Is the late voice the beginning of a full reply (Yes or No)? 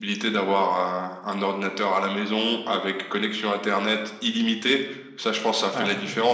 No